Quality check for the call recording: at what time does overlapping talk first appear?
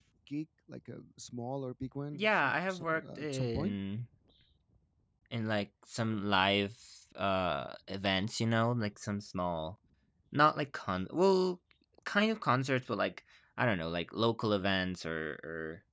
2.1 s

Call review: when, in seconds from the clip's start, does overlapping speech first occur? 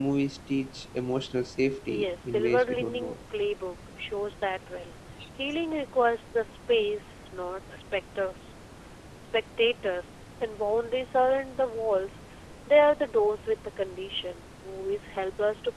1.9 s

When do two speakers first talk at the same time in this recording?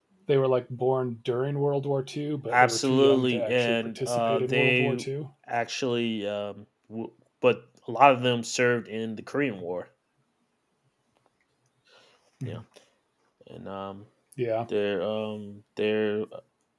2.5 s

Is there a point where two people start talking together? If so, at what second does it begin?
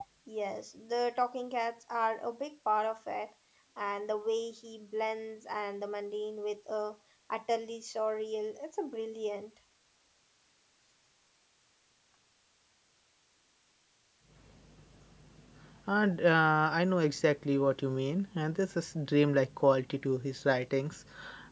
none

